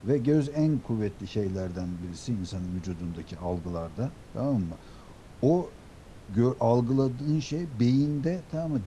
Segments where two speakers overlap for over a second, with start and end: none

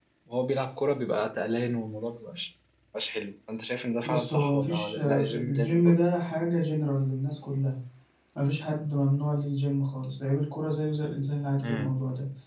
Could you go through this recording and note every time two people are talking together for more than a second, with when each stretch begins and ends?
4.0-6.0

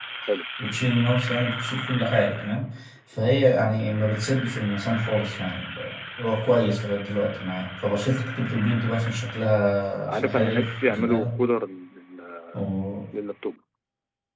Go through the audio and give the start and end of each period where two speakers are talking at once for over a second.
10.1-11.3

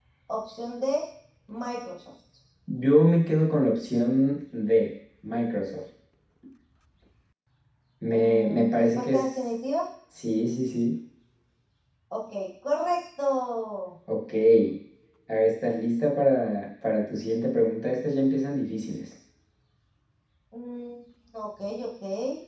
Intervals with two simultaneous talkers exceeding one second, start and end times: 8.1-9.4

